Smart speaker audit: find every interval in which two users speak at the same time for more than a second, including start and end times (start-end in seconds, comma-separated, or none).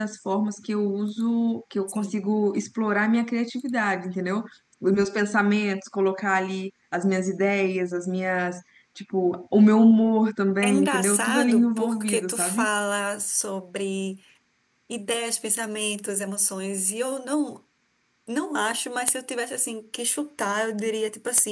10.6-12.7